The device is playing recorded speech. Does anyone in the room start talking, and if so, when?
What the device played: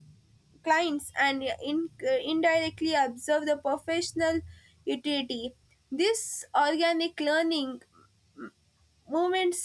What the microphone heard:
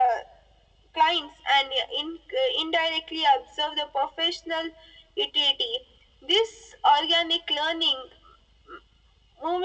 none

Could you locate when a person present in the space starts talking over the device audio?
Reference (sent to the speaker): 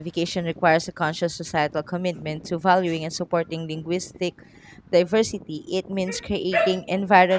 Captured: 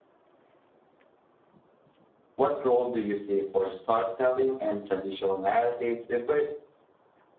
2 s

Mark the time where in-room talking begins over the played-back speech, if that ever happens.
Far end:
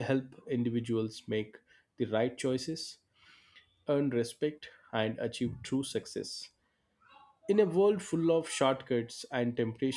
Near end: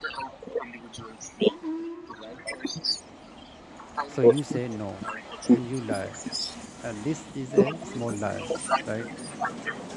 4 s

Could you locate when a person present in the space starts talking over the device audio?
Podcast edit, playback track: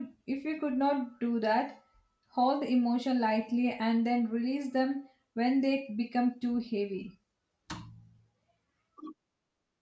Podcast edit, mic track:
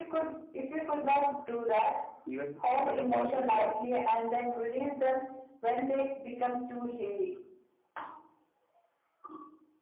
2 s

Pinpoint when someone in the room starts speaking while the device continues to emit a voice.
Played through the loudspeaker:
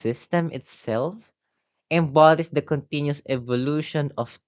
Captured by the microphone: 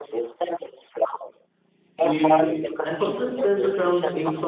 2 s

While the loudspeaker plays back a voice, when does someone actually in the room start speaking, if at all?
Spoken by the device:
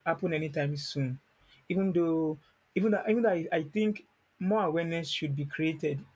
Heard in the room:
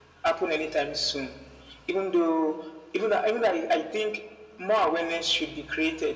none

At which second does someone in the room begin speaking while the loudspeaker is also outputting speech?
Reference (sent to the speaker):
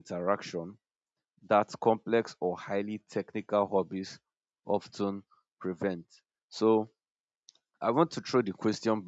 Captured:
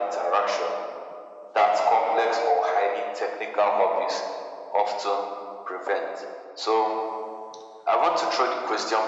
none

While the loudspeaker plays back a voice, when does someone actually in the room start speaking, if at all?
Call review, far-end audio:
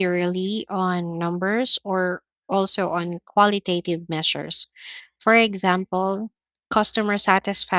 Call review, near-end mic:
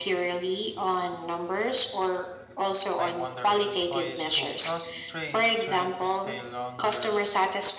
3 s

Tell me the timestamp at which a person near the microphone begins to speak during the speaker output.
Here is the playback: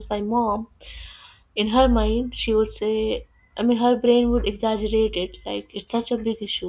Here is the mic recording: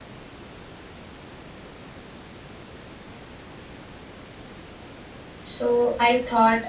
5 s

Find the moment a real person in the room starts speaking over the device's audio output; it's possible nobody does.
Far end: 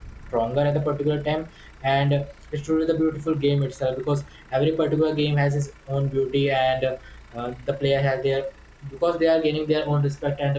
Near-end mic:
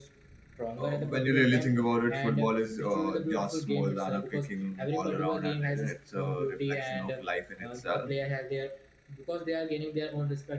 1 s

